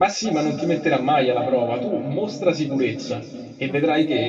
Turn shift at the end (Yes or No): No